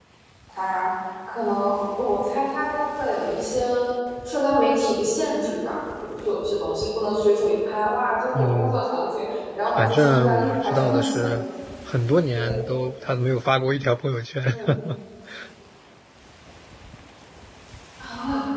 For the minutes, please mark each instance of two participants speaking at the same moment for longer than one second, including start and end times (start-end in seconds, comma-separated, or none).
9.8-11.2